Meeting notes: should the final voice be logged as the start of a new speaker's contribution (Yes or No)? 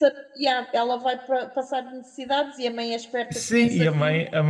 Yes